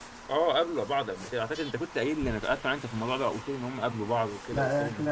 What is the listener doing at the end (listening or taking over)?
taking over